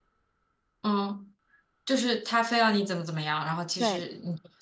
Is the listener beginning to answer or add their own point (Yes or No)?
Yes